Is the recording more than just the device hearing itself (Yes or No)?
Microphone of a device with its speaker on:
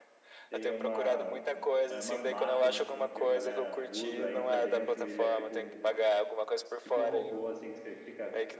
Yes